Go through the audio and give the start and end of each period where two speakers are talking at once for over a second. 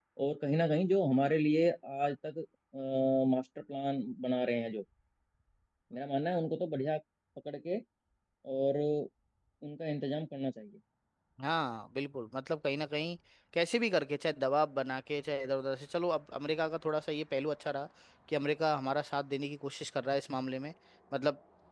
none

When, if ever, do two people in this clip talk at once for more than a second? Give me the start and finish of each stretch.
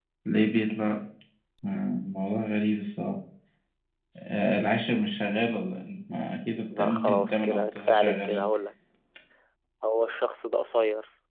6.8-8.4

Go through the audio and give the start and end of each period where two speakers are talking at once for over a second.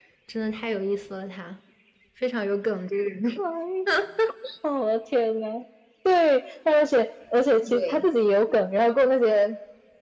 none

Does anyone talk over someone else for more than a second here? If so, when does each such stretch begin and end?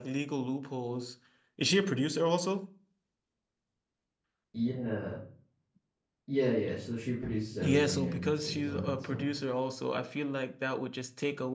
7.6-9.2

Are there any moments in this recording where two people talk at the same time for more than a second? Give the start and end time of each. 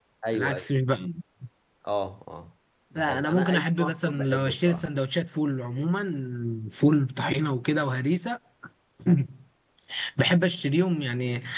3.0-4.9

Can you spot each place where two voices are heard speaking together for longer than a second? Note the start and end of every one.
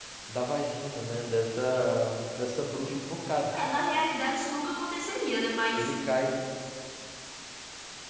none

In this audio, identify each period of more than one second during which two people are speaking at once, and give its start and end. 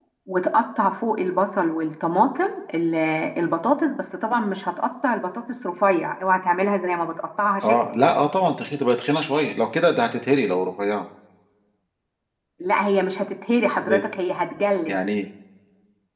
none

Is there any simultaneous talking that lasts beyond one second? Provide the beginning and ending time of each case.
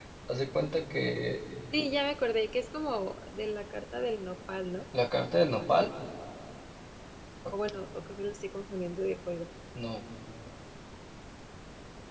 none

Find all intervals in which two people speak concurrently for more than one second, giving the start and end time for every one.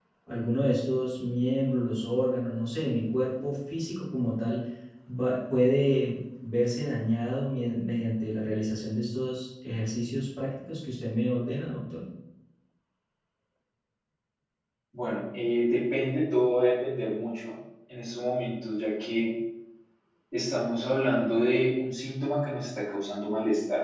none

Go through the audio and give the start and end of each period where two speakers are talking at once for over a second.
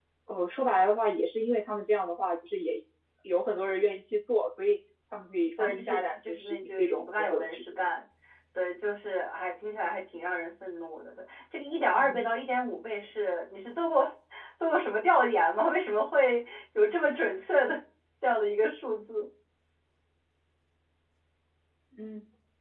5.6-7.6

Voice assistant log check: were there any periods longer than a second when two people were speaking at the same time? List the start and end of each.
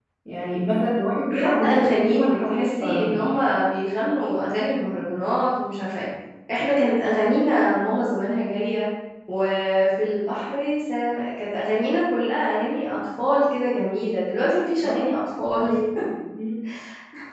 1.3-3.1

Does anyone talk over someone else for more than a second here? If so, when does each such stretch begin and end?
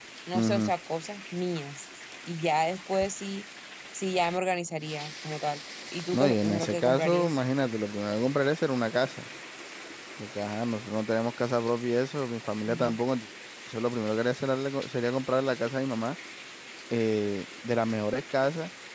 6.1-7.4

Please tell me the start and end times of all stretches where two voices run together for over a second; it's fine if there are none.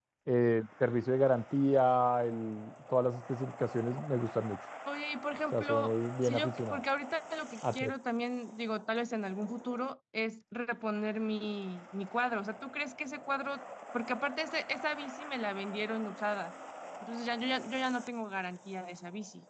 5.5-6.8

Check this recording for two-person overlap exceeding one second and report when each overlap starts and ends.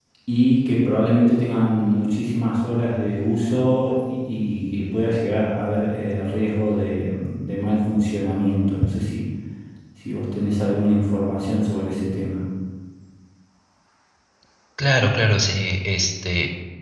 none

